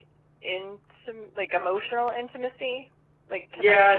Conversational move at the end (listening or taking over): taking over